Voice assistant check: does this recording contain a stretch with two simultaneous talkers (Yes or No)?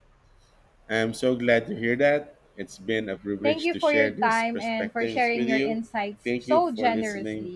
Yes